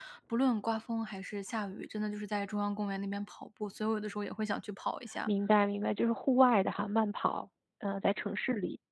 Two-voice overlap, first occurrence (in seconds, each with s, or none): none